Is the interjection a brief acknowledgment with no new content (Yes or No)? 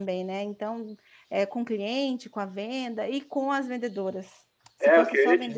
No